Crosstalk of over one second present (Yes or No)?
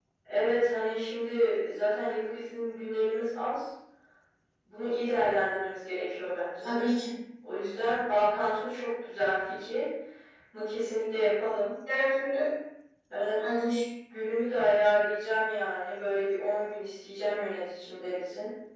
No